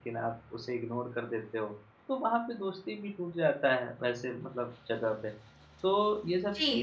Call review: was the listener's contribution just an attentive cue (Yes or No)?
No